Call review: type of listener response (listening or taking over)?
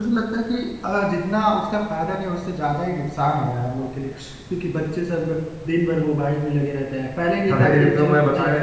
taking over